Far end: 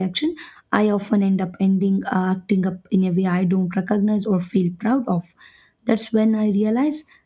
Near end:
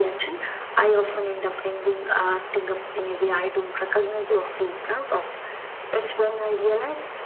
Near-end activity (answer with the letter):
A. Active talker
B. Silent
B